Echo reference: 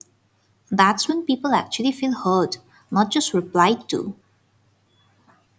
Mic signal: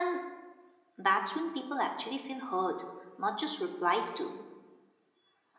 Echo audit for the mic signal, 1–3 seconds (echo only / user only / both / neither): echo only